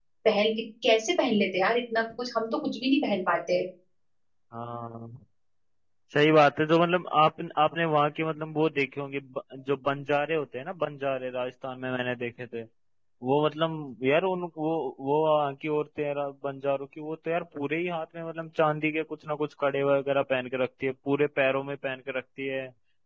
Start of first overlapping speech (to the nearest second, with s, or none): none